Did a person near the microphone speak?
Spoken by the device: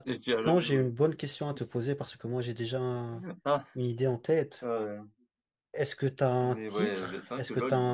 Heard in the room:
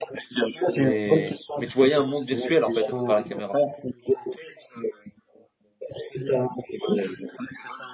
Yes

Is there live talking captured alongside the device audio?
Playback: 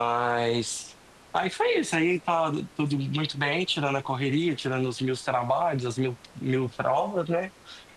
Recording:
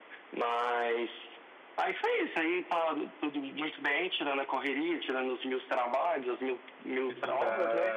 Yes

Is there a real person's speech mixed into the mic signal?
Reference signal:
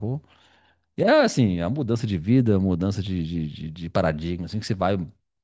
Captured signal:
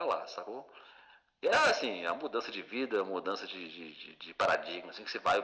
No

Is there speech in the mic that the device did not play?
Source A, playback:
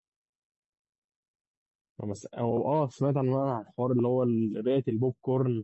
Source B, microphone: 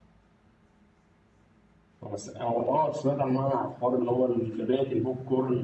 No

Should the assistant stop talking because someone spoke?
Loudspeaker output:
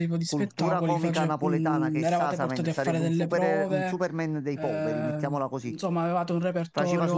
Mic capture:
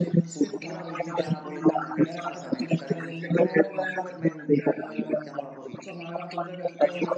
No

